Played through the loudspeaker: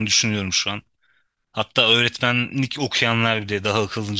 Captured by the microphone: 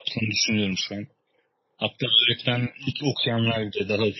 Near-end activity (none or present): none